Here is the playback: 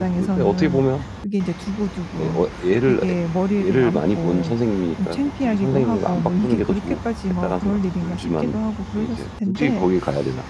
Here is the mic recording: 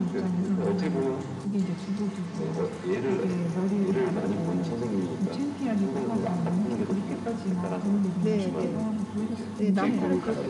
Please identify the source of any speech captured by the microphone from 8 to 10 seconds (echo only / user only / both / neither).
both